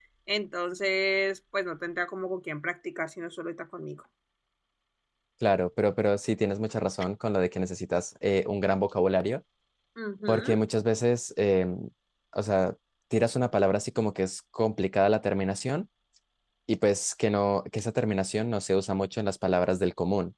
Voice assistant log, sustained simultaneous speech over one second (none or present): none